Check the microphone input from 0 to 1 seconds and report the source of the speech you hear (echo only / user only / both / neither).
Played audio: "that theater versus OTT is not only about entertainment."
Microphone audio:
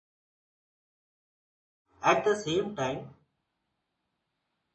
neither